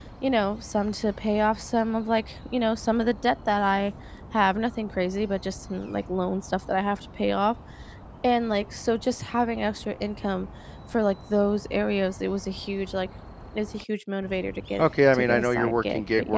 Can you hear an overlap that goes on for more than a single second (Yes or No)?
Yes